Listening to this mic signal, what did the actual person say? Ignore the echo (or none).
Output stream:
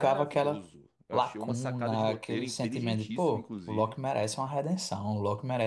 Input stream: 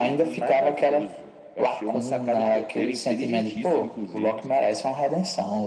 none